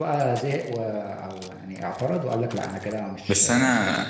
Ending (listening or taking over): taking over